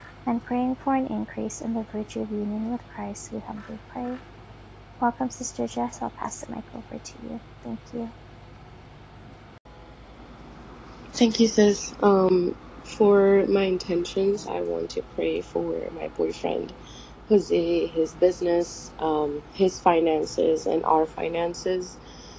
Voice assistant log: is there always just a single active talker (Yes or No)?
Yes